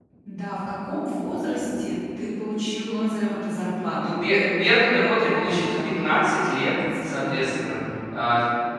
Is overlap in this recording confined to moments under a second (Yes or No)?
No